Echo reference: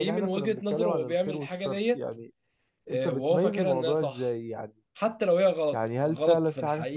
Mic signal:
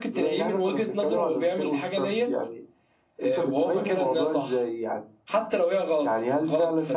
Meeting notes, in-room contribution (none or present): none